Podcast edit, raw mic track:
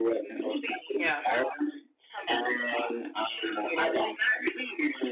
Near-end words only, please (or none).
Yeah.